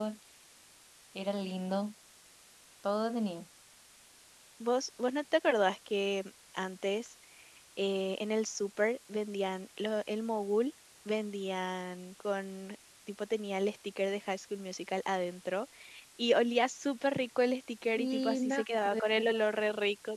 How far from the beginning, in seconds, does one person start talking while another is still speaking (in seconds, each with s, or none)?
18.0 s